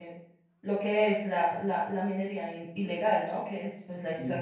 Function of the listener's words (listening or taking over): listening